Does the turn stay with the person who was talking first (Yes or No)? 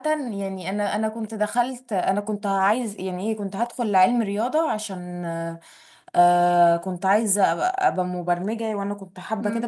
No